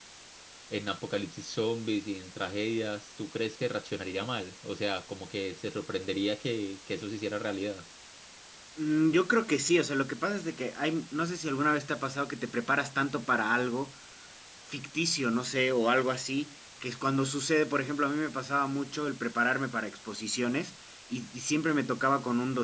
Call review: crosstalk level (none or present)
none